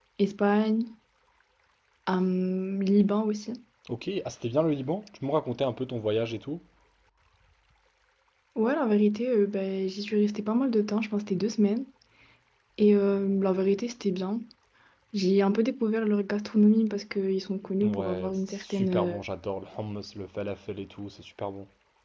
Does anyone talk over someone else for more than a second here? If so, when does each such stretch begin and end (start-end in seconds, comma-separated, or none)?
17.8-19.2